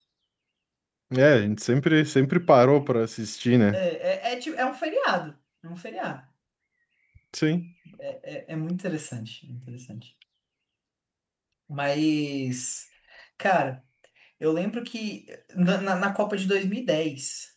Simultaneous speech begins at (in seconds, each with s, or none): none